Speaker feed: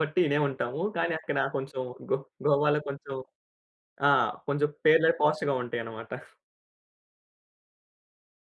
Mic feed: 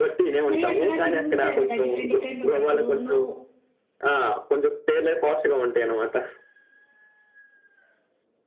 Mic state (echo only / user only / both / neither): both